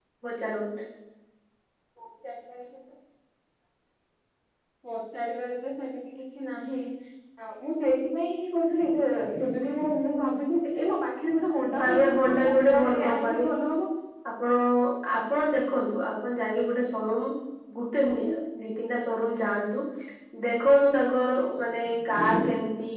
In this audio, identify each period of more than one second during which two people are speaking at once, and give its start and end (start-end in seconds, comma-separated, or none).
11.8-13.5